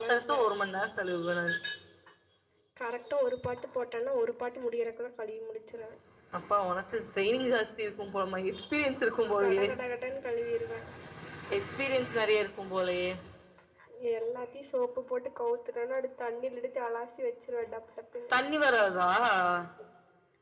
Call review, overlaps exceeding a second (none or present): none